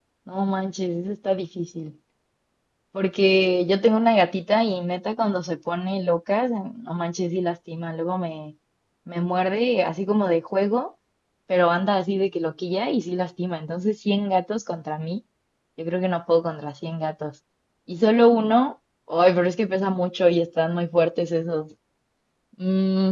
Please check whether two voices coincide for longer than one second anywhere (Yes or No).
No